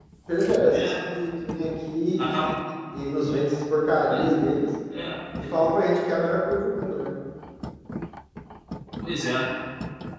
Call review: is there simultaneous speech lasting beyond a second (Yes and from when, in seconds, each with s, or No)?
No